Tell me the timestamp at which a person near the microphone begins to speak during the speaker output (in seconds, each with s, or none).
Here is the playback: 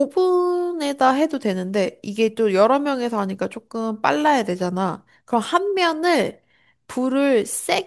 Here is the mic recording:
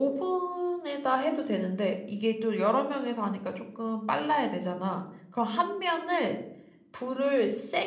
none